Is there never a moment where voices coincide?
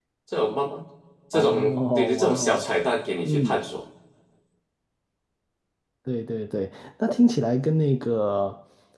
No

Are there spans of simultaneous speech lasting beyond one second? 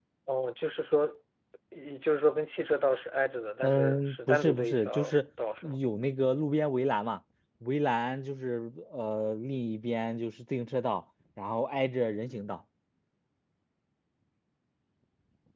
Yes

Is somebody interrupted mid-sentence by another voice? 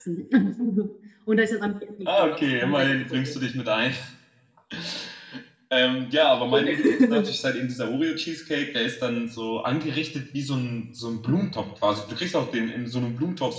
Yes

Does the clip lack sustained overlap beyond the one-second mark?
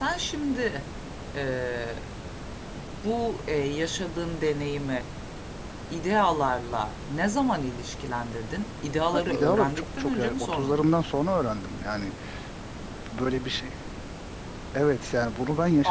No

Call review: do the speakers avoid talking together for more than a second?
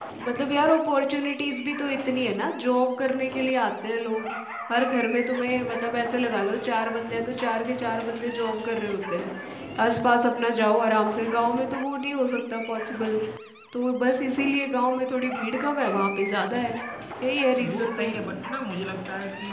Yes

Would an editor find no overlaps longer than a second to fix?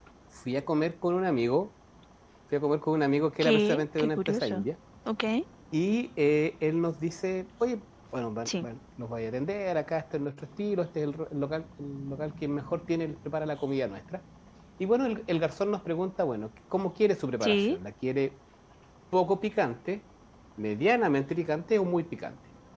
No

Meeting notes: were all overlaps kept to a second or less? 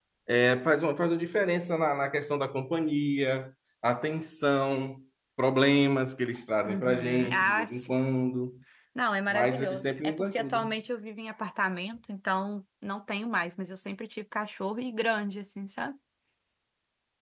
No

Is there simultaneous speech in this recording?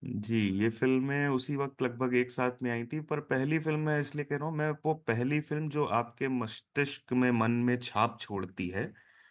No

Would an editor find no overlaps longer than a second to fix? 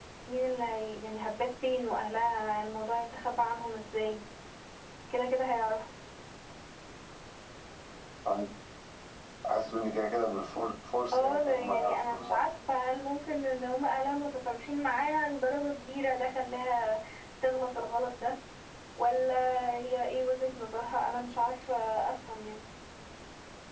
No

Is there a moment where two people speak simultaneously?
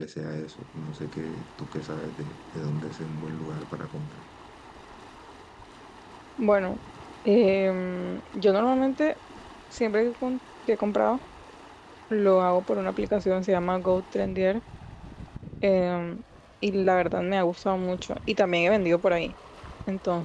No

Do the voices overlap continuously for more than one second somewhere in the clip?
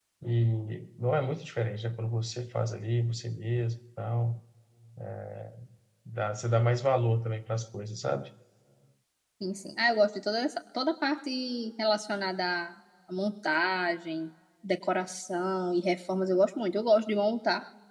No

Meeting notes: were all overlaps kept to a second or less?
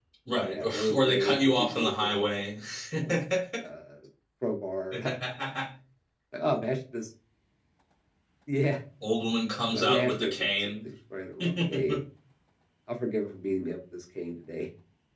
No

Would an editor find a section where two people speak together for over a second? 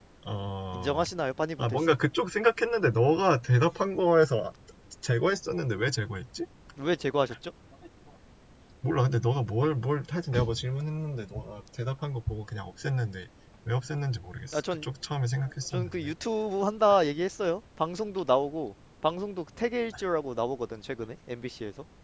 No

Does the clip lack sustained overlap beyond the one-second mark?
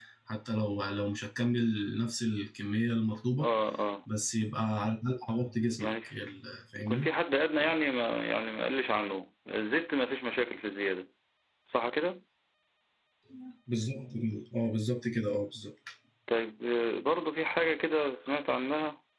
Yes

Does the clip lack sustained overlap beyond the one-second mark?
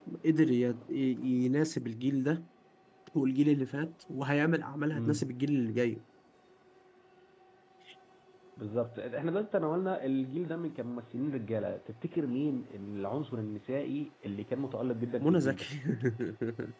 Yes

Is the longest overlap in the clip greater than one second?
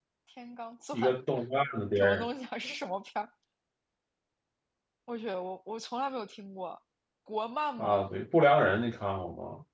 No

